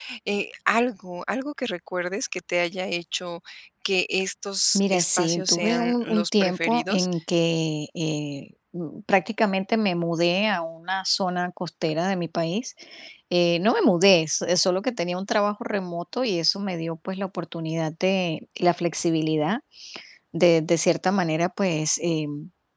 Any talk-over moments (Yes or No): Yes